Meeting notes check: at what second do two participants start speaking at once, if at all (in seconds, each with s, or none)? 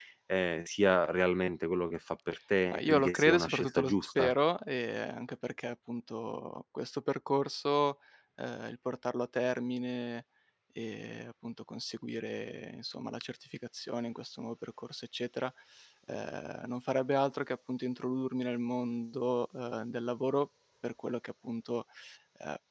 2.7 s